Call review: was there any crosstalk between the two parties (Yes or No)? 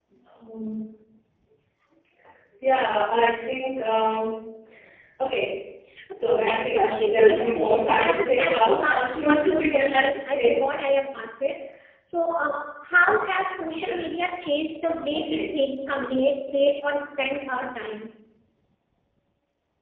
Yes